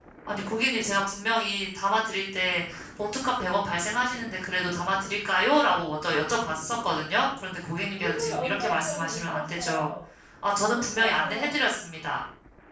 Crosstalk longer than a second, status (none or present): present